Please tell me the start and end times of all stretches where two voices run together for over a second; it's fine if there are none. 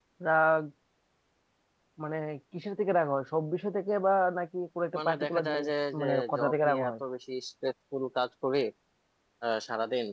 5.0-6.9

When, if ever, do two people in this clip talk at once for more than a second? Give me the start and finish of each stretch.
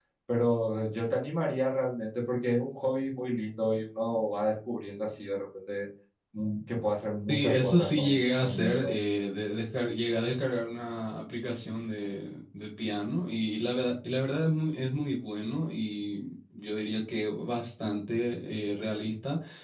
7.3-8.9

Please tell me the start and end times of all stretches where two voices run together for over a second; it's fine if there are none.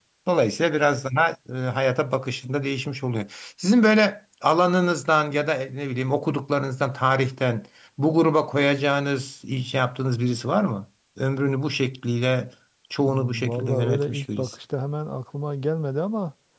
13.1-14.5

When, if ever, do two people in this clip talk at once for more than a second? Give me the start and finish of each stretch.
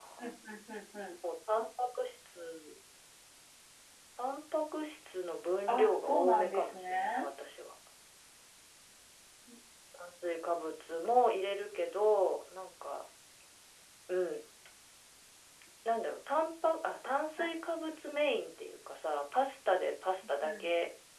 5.7-7.2

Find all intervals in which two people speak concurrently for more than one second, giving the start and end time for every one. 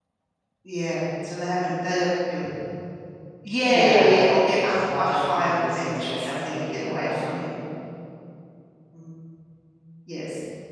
4.7-7.4

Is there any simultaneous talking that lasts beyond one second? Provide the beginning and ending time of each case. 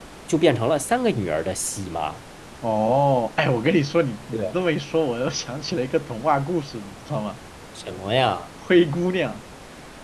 none

